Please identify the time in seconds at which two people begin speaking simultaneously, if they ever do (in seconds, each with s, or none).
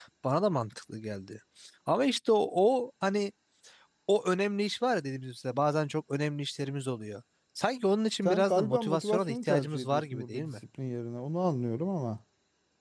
8.2 s